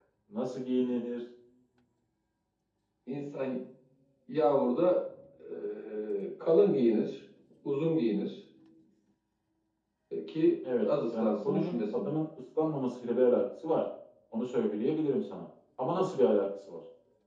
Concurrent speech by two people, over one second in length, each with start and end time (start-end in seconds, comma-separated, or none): 10.8-12.1